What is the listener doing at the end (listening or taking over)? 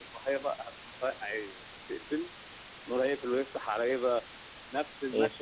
listening